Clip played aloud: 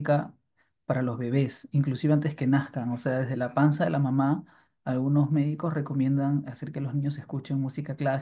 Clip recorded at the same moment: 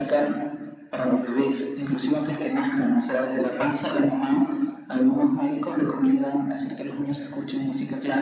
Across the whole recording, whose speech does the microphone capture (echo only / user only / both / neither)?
echo only